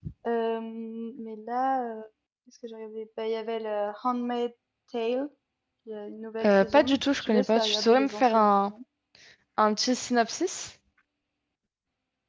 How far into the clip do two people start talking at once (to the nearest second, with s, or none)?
6 s